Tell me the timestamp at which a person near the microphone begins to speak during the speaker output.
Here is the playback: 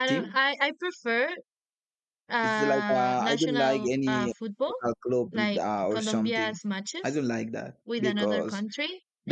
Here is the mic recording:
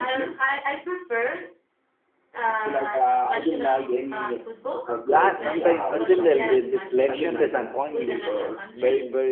5.0 s

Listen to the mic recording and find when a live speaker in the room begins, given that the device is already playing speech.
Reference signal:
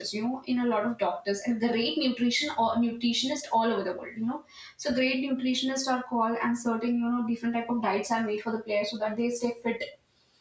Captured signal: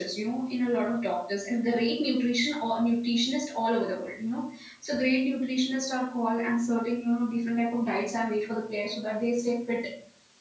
none

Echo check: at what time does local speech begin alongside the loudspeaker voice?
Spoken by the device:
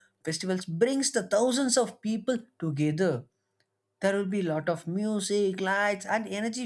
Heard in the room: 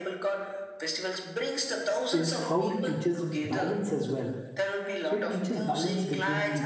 2.1 s

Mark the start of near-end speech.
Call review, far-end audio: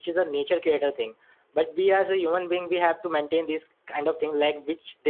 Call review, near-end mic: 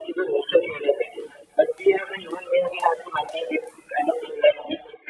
none

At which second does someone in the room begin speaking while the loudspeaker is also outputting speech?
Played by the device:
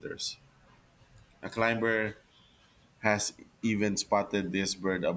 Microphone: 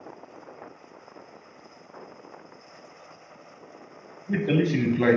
4.3 s

